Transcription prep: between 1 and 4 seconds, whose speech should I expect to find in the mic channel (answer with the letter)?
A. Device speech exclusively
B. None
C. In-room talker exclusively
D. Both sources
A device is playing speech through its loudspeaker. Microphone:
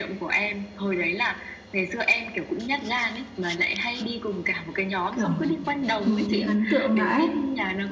A